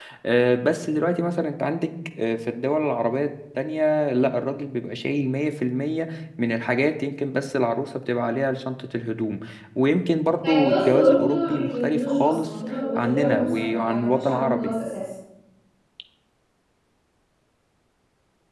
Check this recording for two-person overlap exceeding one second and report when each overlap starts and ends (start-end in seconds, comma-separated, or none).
10.4-14.8